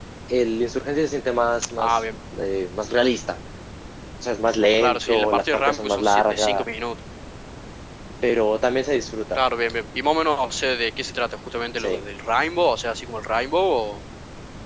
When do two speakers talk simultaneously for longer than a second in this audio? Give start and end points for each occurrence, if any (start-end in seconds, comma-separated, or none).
4.8-6.6